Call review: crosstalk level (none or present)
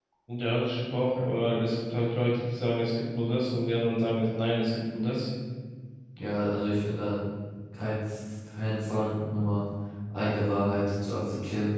none